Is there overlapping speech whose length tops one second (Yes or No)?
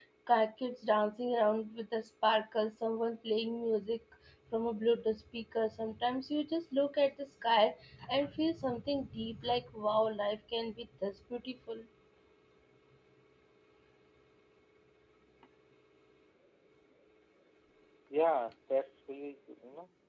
No